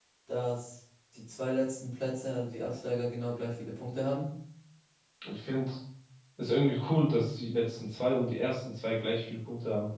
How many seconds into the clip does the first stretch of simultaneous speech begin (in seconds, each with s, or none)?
none